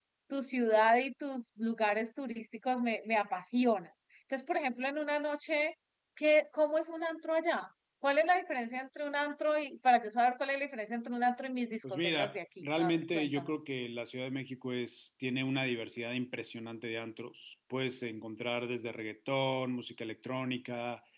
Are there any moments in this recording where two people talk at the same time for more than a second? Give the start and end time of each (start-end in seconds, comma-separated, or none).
11.9-13.5